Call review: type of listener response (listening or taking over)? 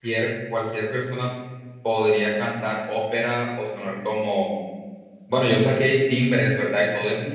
taking over